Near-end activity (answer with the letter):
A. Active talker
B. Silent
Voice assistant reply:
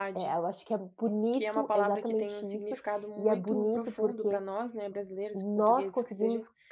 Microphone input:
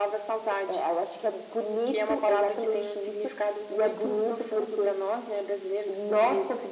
B